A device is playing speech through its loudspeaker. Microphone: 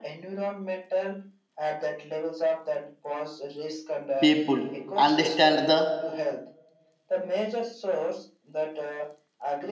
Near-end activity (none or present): present